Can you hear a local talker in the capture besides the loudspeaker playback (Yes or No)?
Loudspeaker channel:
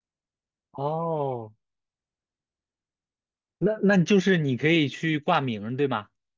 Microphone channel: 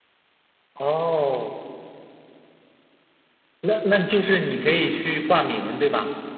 No